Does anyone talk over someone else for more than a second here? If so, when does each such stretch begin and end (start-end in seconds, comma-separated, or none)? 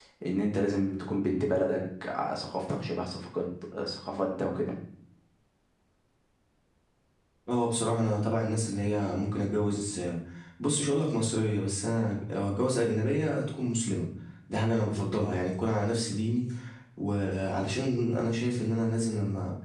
none